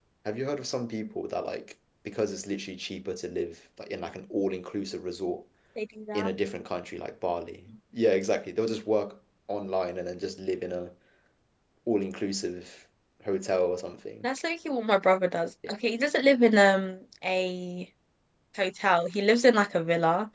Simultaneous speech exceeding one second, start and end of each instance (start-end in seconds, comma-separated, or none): none